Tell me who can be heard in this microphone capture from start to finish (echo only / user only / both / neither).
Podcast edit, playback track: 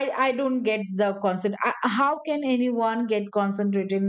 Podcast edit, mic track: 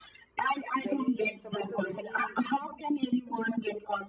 both